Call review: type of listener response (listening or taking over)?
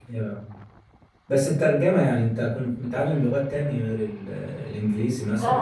taking over